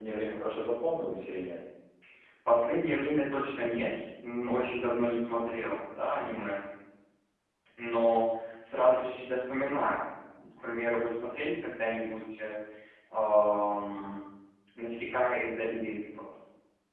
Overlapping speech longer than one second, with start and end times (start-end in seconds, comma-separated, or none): none